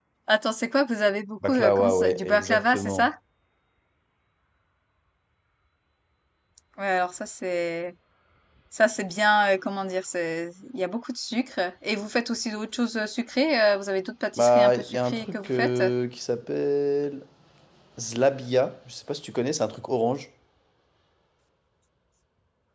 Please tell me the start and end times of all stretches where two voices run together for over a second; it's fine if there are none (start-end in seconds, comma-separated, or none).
1.5-3.1, 14.4-15.8